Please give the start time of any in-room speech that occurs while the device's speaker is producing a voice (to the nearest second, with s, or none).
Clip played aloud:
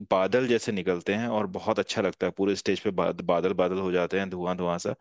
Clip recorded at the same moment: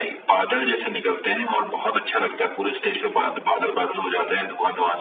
none